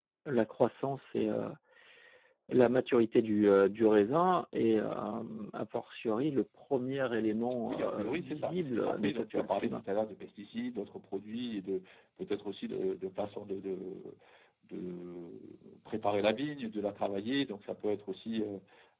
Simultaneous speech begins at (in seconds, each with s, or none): 7.7 s